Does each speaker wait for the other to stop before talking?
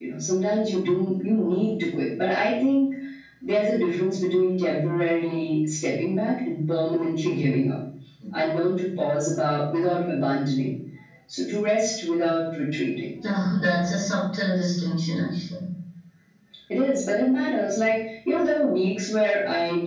Yes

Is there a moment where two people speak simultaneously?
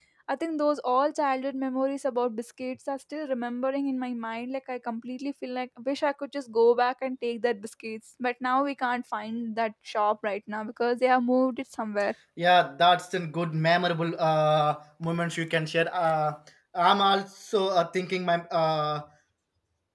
No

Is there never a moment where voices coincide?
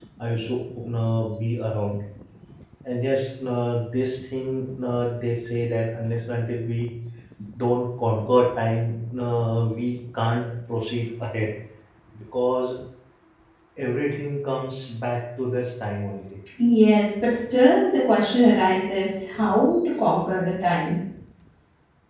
Yes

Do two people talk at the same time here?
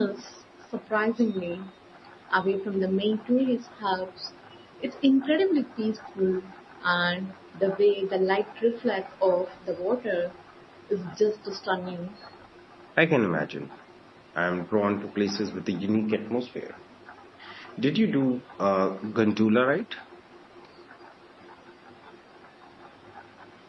No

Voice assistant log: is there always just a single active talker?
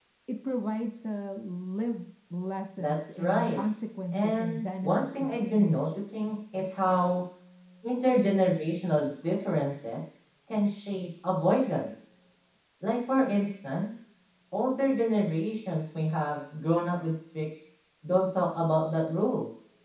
No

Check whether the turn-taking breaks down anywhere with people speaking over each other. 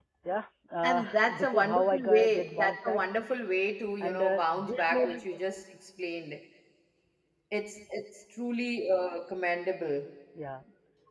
Yes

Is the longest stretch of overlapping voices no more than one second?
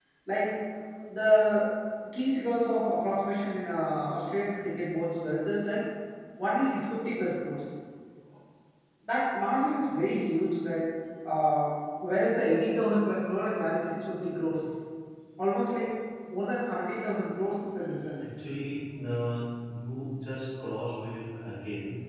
Yes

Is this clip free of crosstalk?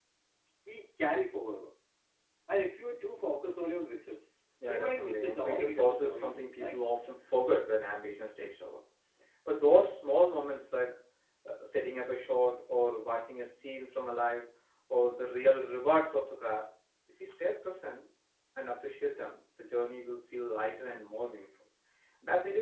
No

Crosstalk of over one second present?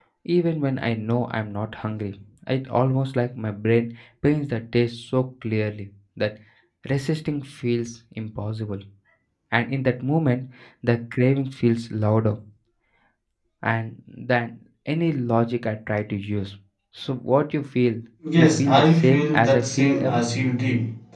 Yes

